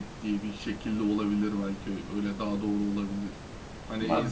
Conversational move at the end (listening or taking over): listening